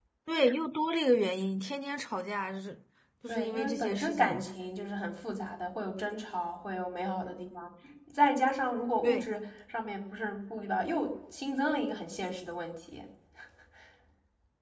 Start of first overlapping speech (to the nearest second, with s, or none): 3 s